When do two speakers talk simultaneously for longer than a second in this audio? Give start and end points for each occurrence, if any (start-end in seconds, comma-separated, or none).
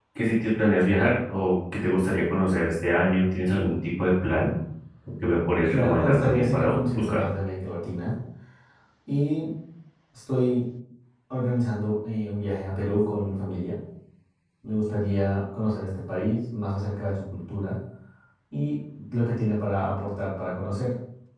5.7-7.2